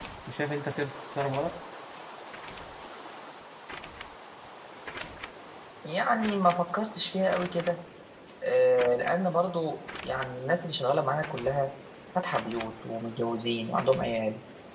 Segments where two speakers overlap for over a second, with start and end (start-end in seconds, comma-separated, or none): none